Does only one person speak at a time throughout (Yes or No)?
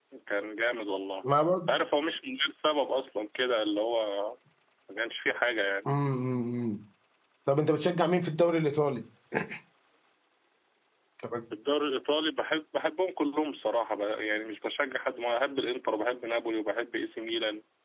Yes